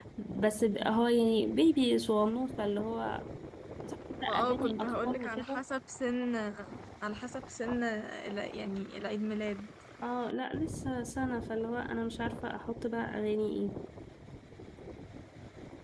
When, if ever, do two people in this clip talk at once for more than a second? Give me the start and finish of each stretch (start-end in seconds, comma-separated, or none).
4.3-5.6